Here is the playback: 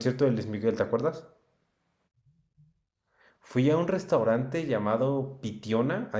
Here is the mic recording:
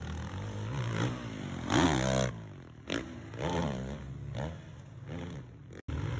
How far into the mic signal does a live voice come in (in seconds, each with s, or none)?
none